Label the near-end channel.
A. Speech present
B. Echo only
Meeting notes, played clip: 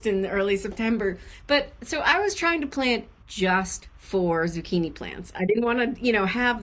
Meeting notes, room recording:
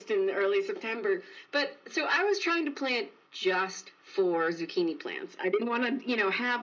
B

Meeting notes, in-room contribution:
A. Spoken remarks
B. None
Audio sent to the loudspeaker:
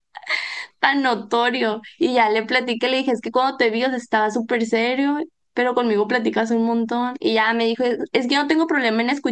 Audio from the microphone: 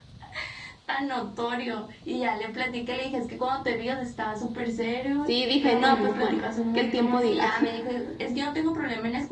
A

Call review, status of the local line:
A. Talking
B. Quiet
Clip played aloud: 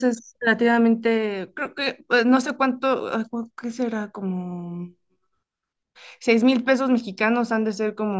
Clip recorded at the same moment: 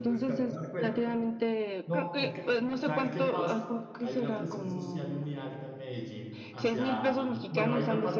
A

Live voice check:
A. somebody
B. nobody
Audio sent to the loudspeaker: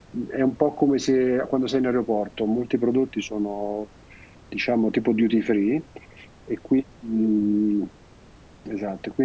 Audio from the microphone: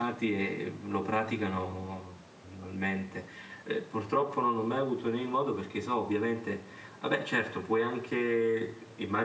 A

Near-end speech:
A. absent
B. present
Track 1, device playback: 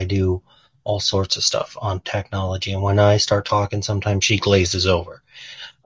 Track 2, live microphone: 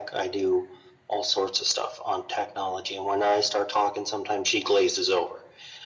A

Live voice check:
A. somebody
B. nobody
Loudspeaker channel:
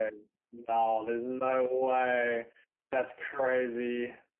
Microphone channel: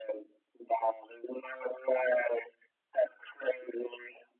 B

